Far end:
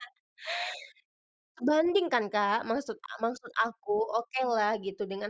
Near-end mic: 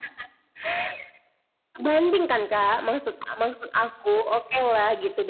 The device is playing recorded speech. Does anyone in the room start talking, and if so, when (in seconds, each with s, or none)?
none